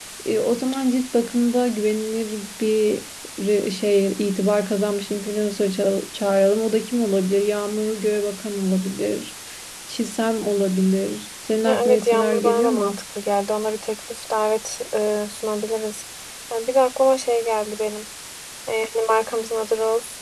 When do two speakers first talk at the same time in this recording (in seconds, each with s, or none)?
11.6 s